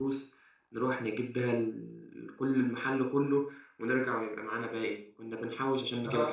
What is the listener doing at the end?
listening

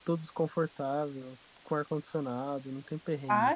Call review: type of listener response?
taking over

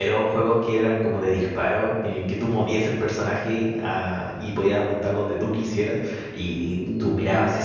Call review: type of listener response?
listening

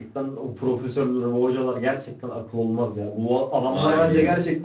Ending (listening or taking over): listening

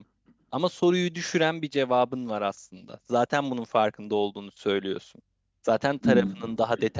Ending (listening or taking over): listening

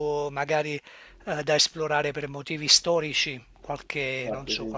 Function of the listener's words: listening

